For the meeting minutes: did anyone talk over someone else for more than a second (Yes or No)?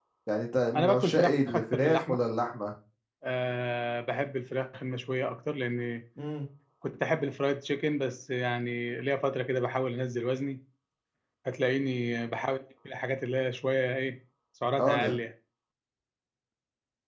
Yes